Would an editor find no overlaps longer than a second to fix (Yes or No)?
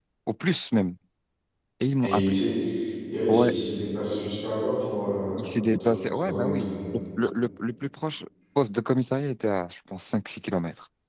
No